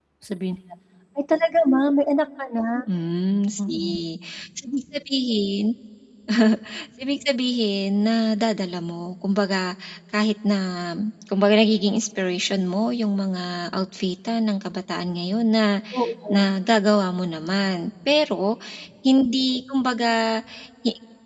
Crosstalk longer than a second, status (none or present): none